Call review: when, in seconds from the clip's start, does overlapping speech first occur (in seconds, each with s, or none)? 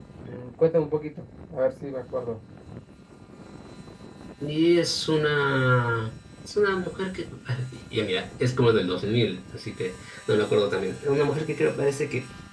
none